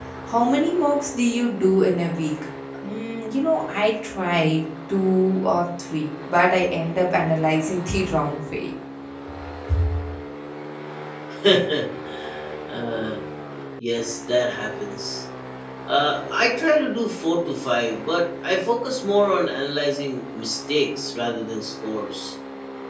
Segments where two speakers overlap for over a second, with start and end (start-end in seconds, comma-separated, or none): none